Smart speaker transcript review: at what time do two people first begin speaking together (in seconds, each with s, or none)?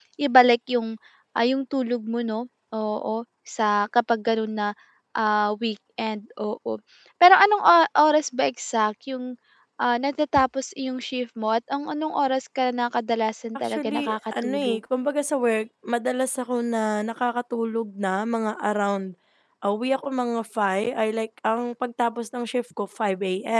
13.6 s